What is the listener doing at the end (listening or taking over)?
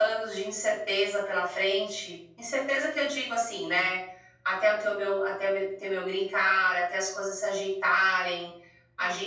listening